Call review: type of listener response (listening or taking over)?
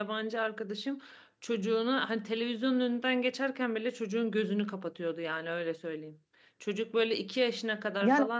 listening